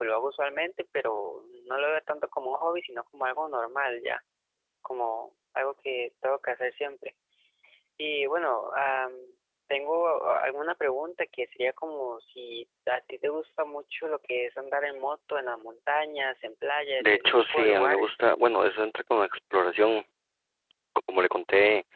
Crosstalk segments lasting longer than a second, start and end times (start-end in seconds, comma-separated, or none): 17.0-18.2